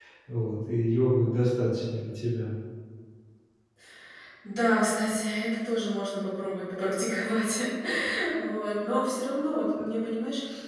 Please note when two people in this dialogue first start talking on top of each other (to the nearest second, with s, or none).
none